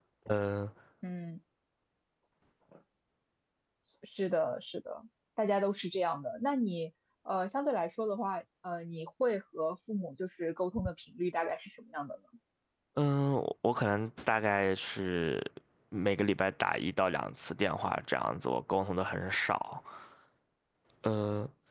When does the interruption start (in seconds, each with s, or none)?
none